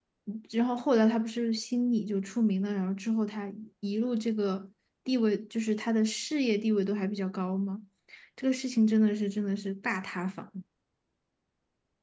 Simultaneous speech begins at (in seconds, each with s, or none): none